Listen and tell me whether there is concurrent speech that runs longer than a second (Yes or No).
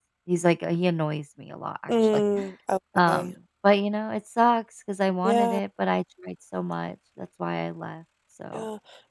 No